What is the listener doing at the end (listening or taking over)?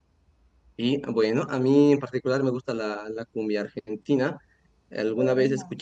listening